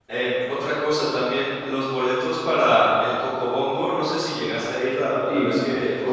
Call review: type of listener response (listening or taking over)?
taking over